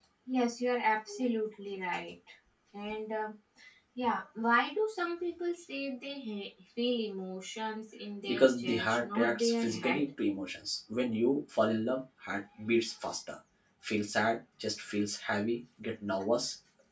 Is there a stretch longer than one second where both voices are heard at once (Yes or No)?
Yes